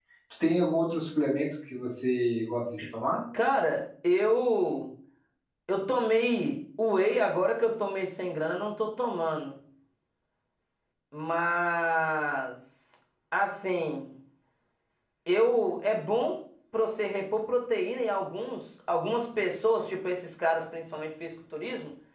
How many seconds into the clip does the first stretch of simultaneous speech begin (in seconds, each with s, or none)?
none